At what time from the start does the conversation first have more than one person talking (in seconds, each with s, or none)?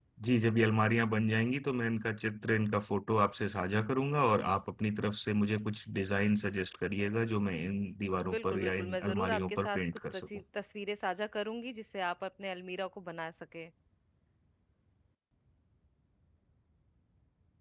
8.2 s